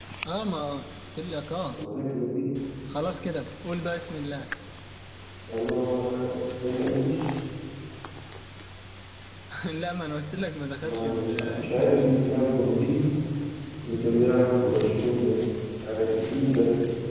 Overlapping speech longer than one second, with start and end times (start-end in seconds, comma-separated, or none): 10.8-12.3